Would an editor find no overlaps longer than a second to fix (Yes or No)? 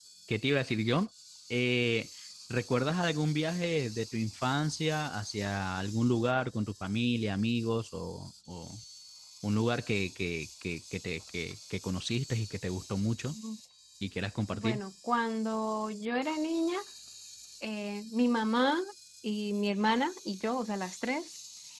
Yes